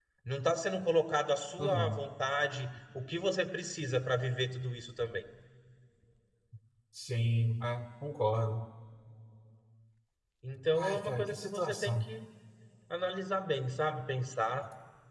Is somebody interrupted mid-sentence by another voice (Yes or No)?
Yes